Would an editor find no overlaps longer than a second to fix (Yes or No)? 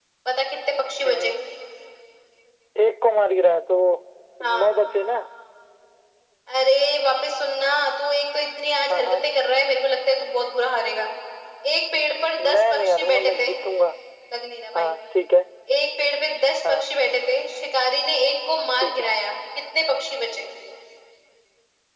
No